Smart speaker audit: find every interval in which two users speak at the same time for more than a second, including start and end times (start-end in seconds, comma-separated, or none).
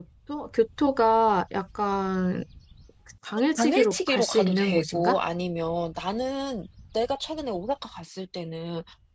3.6-5.2